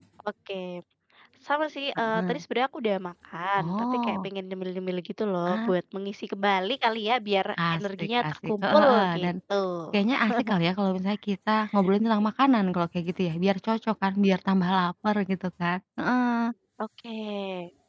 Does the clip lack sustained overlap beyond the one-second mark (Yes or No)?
No